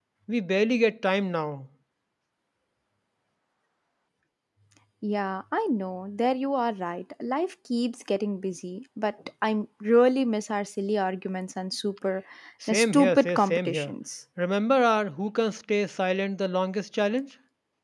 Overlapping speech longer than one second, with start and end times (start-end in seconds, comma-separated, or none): 12.7-13.9